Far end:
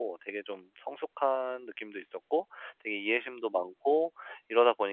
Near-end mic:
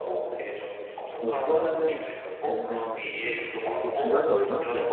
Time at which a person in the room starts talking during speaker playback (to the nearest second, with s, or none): 1 s